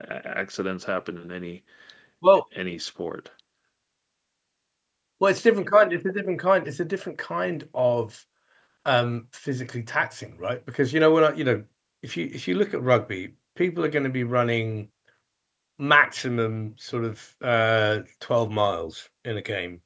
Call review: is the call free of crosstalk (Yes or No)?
Yes